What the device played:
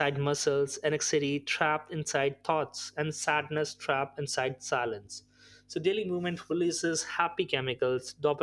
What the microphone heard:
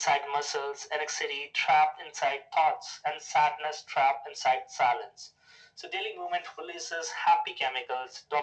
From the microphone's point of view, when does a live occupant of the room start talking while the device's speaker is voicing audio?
none

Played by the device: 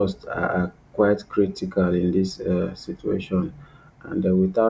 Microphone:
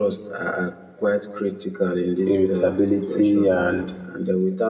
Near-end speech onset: 2.3 s

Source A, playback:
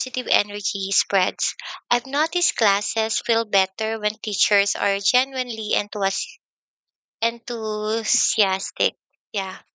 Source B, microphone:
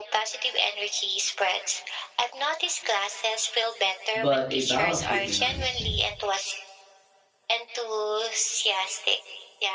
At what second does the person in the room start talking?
4.2 s

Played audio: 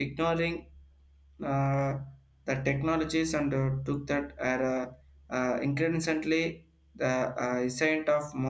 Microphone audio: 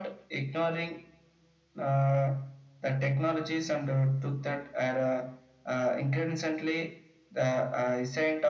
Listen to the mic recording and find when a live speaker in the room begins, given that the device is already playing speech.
none

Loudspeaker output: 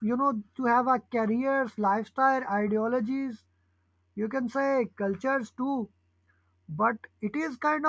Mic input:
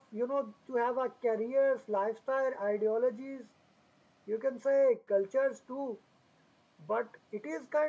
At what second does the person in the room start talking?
none

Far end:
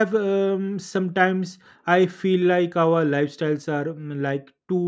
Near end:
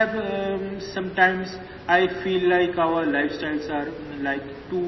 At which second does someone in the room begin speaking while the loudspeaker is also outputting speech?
none

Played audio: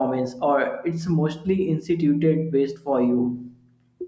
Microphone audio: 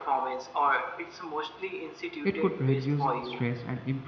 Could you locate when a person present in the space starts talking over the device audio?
2.2 s

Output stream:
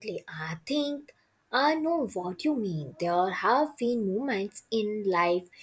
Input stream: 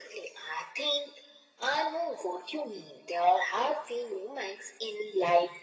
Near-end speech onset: none

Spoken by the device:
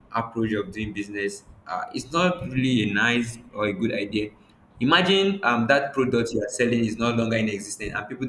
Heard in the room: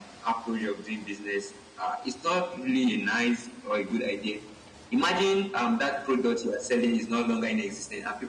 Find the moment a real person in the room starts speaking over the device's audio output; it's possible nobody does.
none

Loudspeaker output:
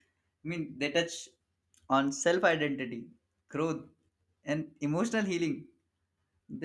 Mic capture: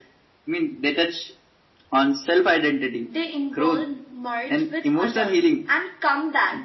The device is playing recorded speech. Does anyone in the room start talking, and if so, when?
3.0 s

